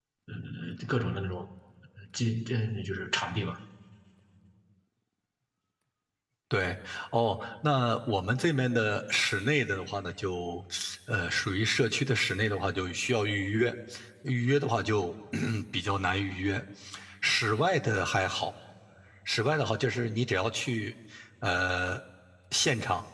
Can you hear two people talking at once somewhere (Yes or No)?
No